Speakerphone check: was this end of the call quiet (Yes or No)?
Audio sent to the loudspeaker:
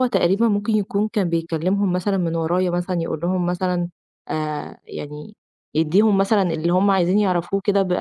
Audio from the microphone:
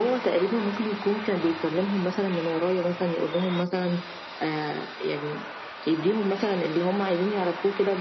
Yes